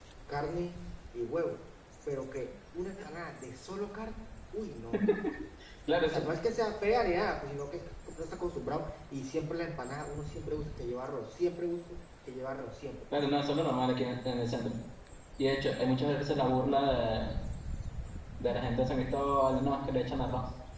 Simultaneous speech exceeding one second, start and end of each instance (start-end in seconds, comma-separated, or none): none